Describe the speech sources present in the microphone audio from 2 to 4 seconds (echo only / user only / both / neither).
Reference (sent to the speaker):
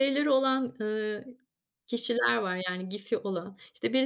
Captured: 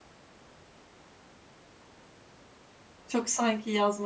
user only